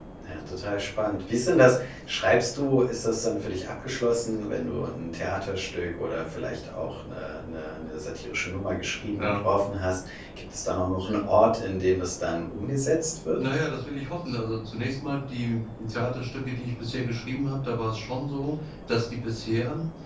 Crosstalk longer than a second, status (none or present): none